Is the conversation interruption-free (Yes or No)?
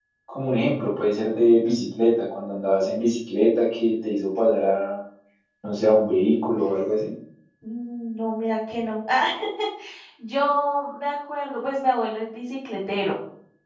Yes